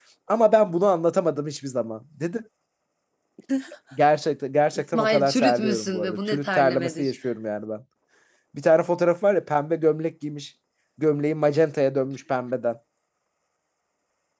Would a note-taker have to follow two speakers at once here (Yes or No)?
Yes